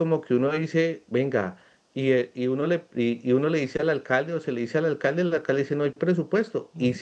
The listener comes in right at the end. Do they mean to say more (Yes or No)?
No